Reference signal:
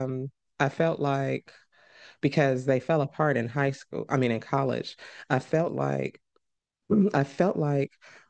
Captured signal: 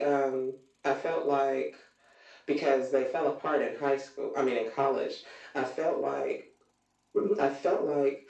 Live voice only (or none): none